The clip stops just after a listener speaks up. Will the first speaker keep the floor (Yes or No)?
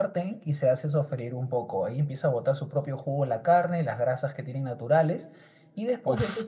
Yes